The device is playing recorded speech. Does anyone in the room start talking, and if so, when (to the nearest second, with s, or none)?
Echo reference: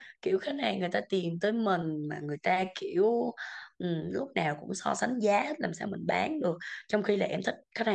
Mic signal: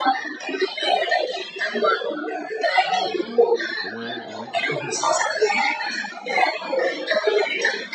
3 s